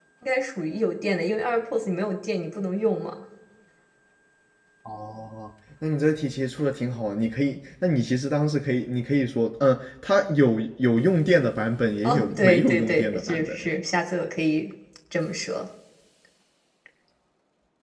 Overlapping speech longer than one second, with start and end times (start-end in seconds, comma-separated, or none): 12.0-13.6